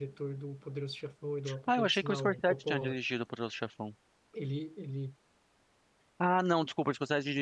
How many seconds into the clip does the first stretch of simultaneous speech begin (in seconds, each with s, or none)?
1.5 s